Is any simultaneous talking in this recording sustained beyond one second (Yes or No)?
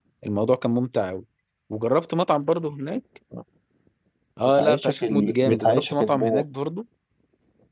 Yes